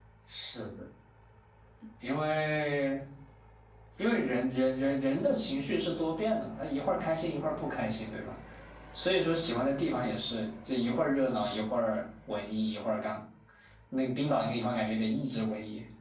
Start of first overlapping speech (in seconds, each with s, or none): none